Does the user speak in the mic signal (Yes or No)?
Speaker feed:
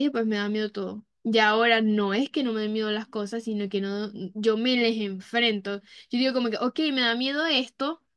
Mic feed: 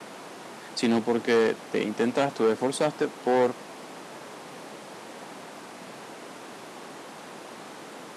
Yes